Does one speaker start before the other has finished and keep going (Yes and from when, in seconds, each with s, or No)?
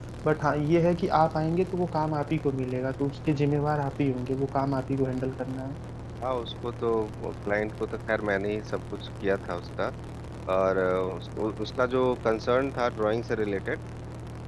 No